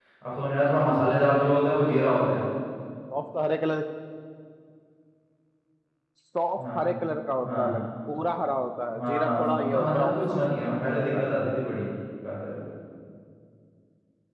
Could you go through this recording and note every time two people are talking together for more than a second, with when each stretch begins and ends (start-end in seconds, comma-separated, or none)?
9.0-10.3